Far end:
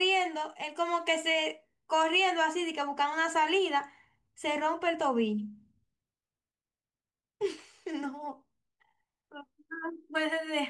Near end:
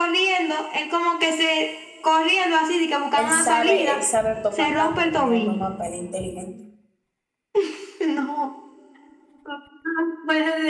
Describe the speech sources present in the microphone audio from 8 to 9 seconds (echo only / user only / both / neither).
echo only